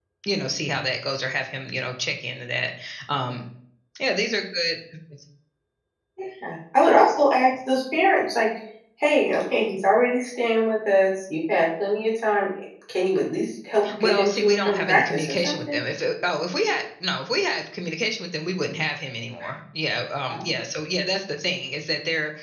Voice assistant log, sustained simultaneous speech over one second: present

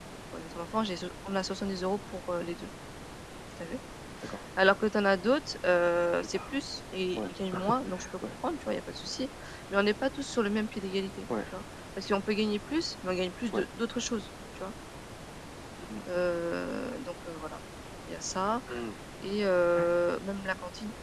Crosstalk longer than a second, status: none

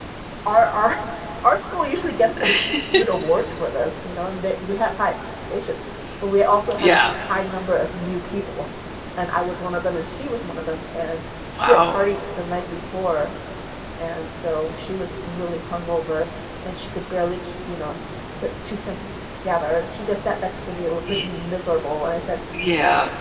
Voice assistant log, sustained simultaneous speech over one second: none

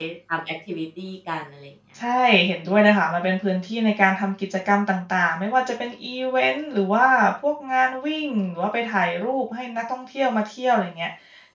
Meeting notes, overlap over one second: none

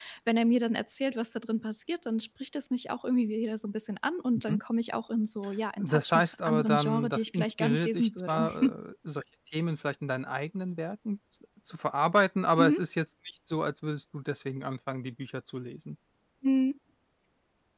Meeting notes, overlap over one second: present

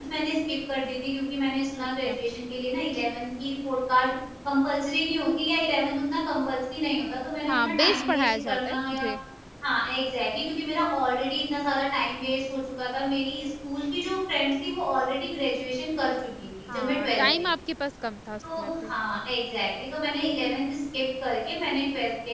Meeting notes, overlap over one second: present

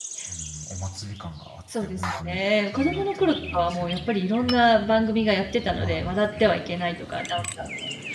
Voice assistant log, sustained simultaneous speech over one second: present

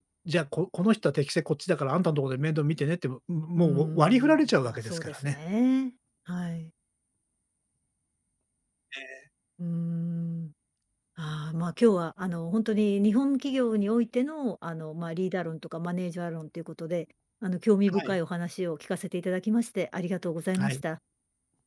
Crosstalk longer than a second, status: present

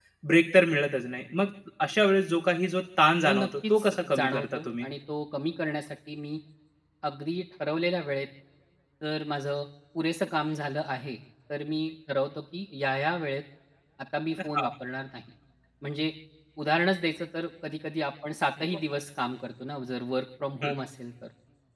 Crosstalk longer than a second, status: present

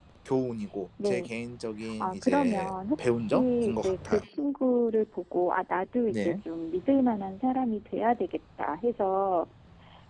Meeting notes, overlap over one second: present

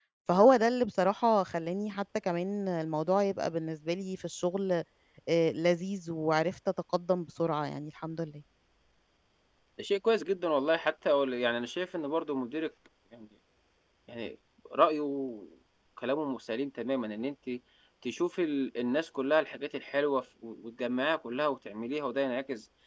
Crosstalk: none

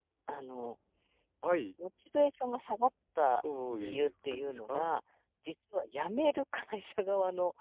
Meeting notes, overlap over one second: present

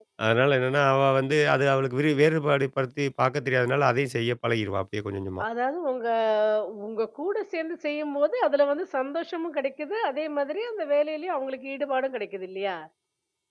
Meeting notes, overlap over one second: none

